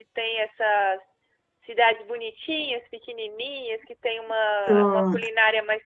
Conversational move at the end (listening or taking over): listening